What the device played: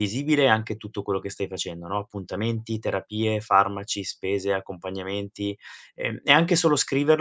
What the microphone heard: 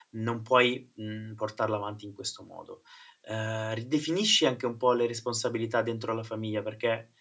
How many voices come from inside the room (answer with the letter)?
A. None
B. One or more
B